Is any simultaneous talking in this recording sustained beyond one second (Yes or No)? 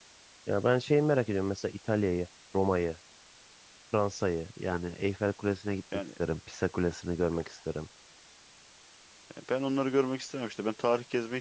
No